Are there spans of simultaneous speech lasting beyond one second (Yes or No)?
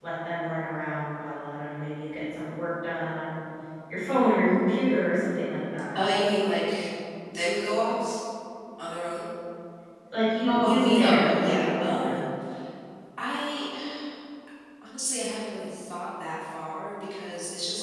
Yes